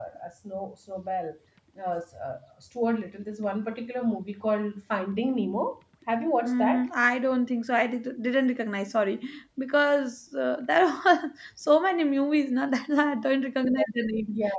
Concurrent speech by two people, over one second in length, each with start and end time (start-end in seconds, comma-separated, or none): none